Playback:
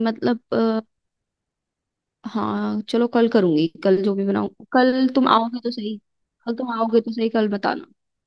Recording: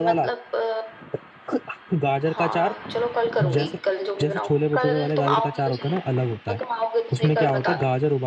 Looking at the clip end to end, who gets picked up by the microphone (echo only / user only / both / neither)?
both